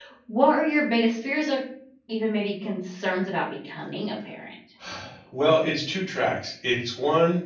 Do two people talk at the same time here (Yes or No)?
No